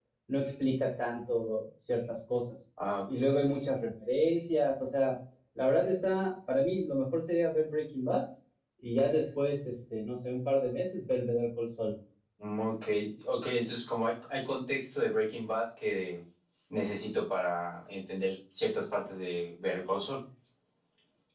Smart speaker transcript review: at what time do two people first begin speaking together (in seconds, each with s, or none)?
none